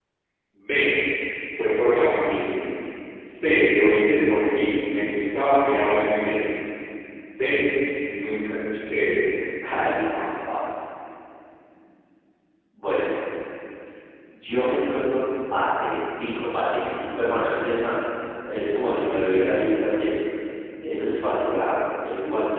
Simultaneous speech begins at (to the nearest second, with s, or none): none